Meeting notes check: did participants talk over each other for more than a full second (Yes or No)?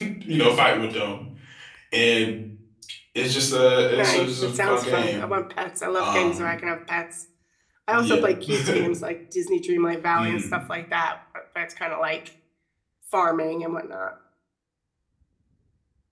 Yes